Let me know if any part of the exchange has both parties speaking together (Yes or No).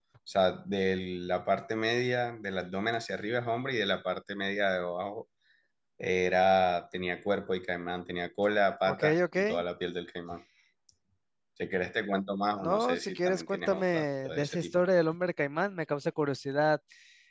Yes